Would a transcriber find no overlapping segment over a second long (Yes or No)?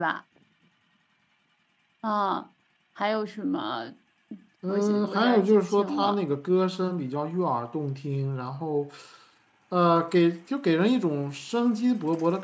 No